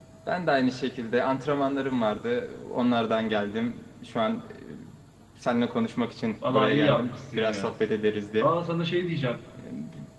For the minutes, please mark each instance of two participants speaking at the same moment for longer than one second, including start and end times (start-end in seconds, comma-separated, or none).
6.5-7.7